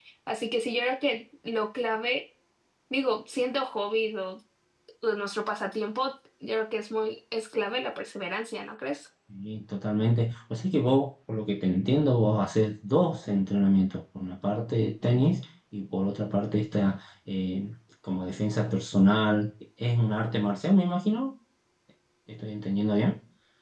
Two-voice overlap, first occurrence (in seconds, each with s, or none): none